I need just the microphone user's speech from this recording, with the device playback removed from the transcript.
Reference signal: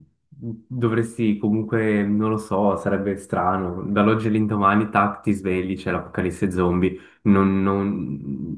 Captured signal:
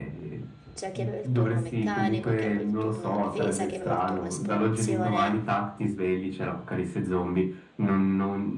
C'era chi aveva il turno meccanico, chi aveva il turno difesa, chi aveva il turno esplorazione.

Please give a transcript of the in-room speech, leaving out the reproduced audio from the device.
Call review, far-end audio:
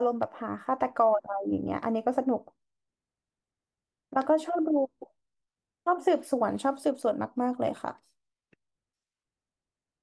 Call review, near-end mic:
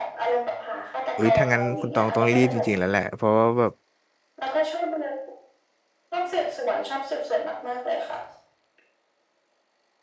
อุ้ยถ้างั้นคุณตองต้องรีบจริงๆแล้วแหละ เพราะว่าแบบ

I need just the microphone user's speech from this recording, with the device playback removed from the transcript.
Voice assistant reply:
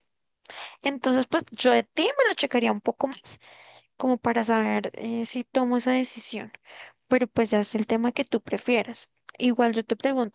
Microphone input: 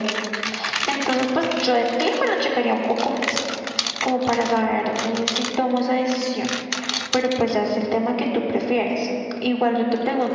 none

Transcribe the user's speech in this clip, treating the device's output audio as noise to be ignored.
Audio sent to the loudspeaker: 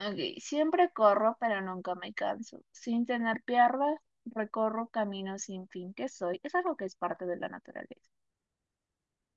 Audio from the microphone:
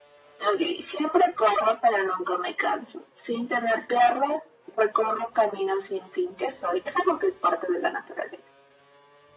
none

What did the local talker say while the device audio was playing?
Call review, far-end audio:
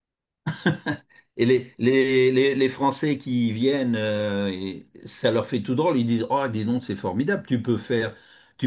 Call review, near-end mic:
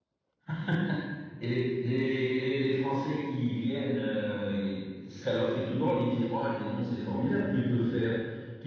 none

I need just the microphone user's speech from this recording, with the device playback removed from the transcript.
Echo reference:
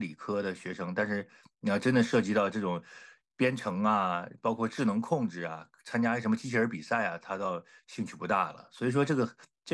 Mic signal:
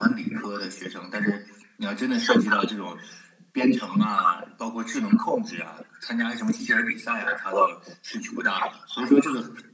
none

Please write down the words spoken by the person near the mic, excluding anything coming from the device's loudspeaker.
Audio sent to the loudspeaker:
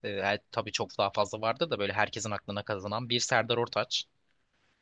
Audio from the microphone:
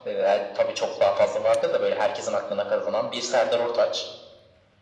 none

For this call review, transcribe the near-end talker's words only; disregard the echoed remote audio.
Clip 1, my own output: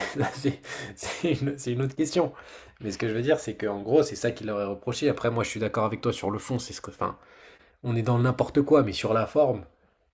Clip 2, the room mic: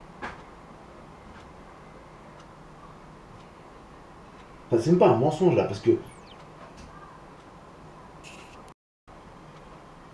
Enfin, c'est même pas un mensonge là, parce que

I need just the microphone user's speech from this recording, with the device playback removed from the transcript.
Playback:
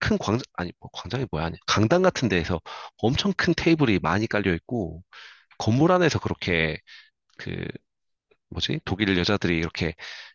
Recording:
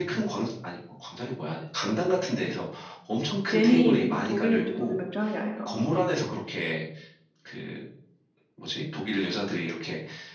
괜히 독일 맥주, 독일 맥주 하는 게 아니더라고.

